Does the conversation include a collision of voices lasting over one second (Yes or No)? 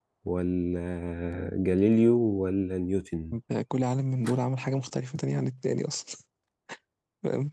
No